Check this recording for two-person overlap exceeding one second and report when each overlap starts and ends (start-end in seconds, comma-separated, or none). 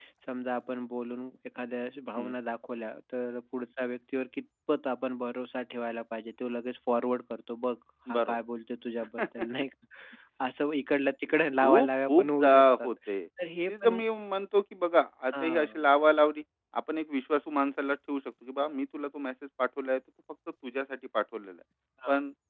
11.6-12.9